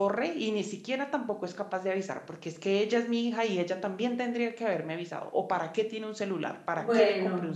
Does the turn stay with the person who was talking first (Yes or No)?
No